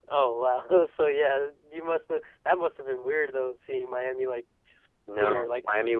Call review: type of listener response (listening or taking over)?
taking over